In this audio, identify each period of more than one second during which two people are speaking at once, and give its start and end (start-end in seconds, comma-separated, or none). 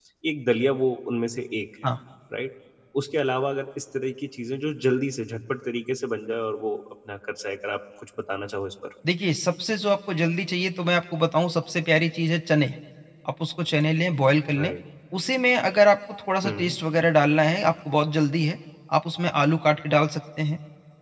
none